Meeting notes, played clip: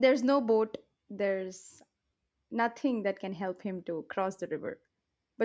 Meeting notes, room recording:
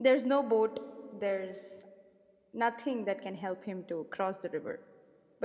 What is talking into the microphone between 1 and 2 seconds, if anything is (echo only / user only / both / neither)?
echo only